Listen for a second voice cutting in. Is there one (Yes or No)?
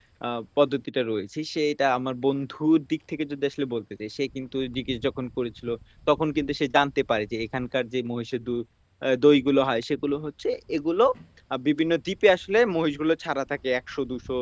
No